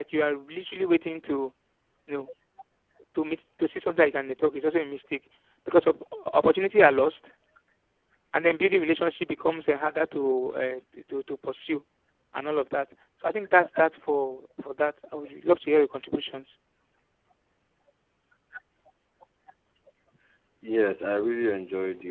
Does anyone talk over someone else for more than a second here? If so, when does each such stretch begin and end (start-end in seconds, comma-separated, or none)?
none